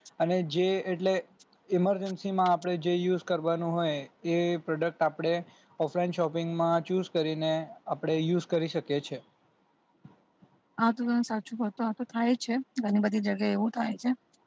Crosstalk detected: No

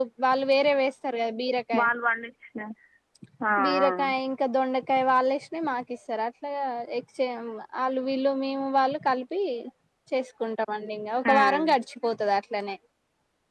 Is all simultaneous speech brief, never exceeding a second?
Yes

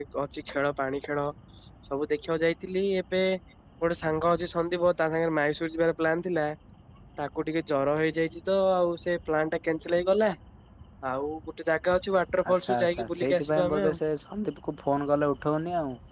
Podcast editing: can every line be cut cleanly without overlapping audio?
No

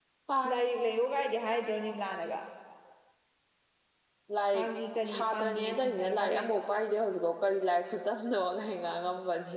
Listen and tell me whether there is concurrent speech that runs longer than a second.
Yes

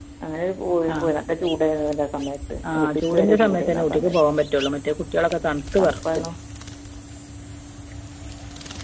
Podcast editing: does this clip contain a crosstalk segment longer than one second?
Yes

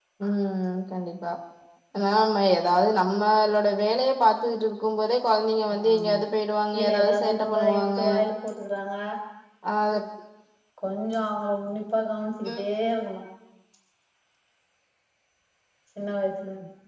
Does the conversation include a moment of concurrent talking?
Yes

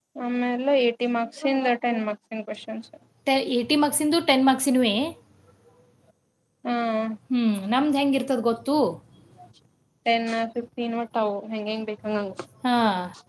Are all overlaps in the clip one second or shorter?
Yes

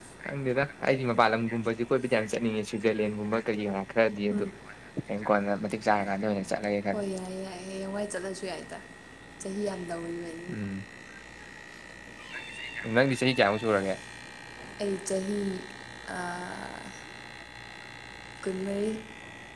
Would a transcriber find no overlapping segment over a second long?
Yes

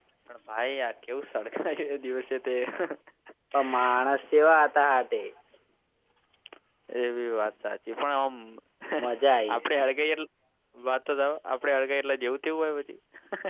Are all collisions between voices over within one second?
Yes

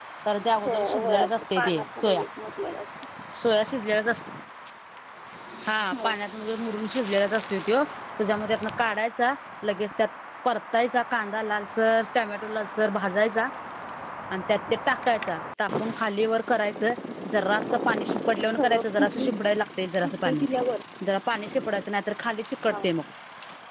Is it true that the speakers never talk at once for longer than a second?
No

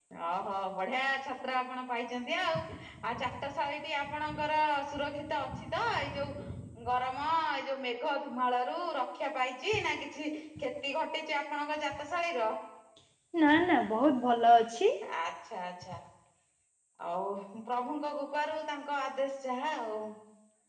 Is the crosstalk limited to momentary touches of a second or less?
Yes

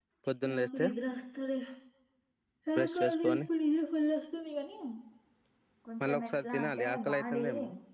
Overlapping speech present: Yes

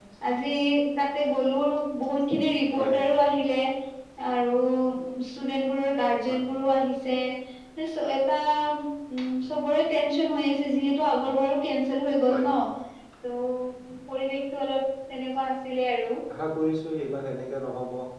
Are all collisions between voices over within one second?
Yes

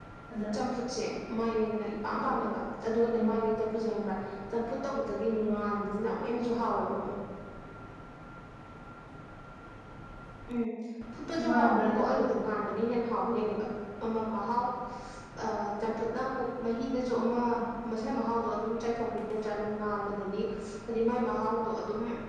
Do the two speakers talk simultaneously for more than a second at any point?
Yes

